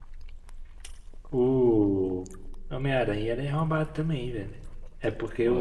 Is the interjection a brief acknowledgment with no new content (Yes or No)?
Yes